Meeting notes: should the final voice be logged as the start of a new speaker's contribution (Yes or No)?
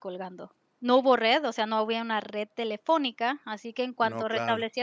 No